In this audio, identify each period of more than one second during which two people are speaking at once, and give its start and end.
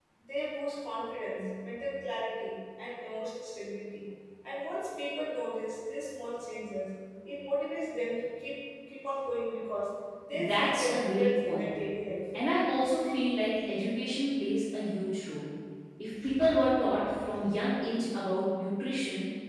10.3-11.7

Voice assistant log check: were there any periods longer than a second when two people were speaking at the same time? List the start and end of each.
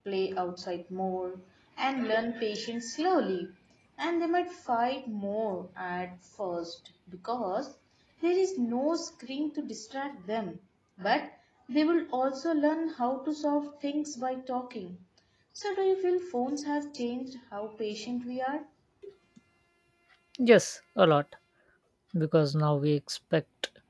none

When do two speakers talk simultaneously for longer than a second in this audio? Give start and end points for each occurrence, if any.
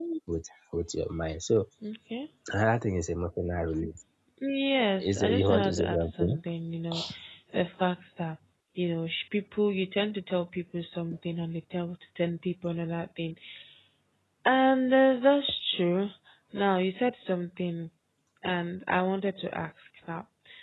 5.0-6.4

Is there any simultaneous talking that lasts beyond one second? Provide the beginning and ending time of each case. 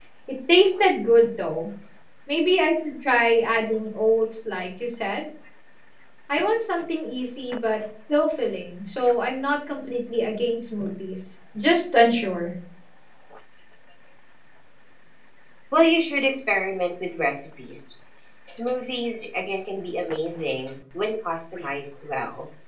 none

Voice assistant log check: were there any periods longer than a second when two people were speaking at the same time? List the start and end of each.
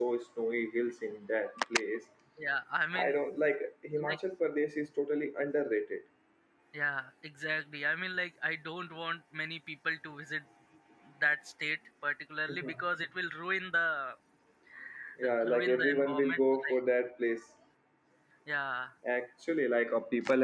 15.5-16.8

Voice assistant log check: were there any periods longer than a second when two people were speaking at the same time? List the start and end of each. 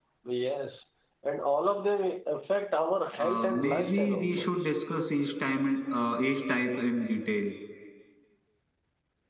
3.2-4.5

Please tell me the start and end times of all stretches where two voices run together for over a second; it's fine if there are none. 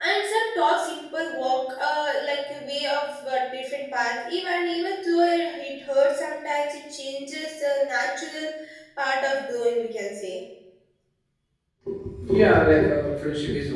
none

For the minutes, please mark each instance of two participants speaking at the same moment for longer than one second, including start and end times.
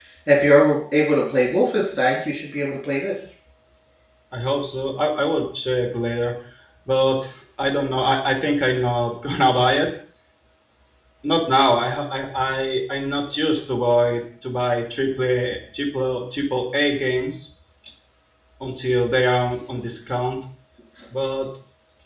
none

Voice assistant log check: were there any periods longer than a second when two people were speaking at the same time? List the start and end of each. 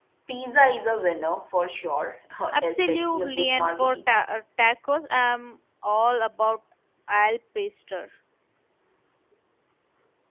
2.6-4.2

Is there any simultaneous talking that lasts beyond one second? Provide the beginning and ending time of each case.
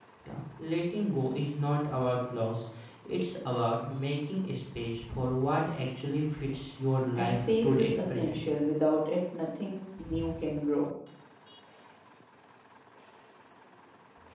7.2-8.4

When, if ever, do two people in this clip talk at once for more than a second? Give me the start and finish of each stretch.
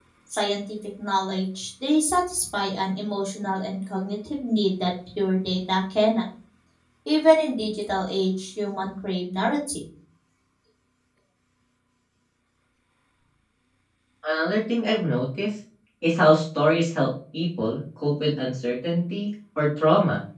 none

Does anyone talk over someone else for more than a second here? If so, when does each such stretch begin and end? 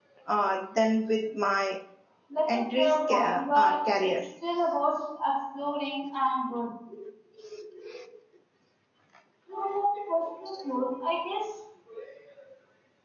2.5-4.1

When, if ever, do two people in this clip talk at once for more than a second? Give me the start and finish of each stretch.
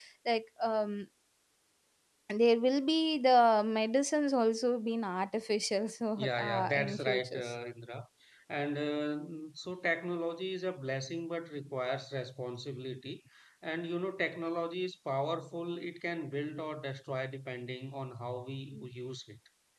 6.2-7.5

